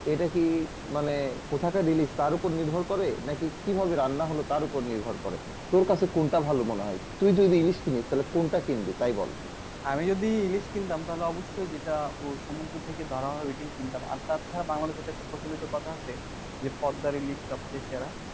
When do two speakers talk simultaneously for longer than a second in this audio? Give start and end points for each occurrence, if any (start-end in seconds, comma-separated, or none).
none